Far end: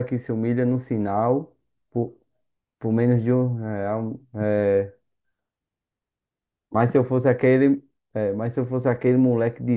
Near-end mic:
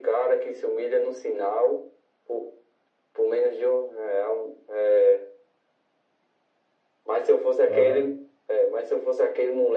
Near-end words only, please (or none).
Aham,